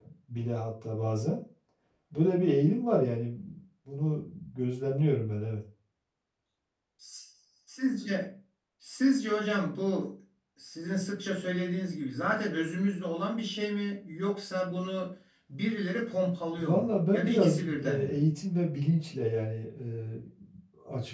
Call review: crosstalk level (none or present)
present